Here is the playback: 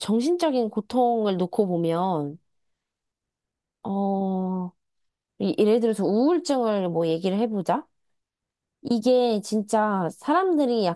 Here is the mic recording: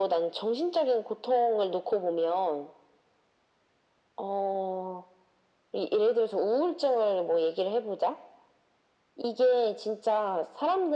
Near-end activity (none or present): none